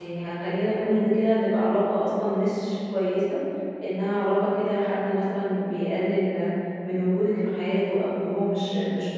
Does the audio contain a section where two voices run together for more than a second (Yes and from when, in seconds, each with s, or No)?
No